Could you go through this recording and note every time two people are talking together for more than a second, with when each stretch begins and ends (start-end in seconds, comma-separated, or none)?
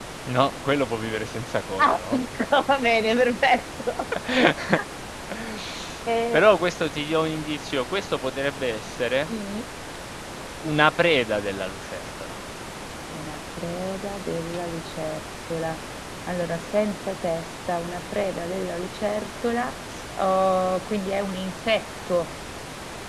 none